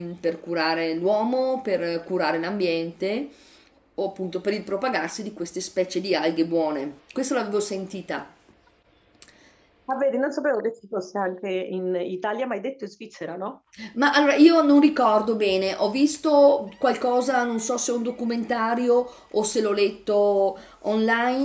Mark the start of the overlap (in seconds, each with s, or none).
none